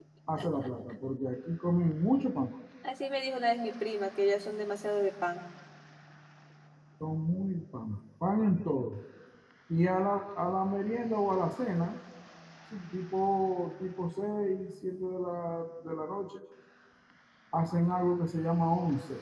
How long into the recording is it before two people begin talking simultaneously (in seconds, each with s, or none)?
none